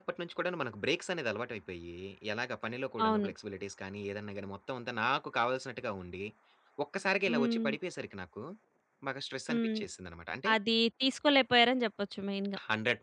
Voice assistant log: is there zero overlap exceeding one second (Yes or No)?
Yes